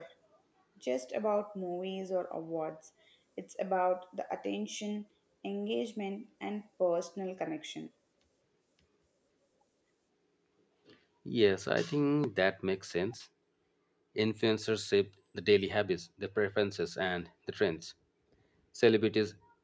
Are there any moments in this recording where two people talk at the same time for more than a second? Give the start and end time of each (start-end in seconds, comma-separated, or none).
none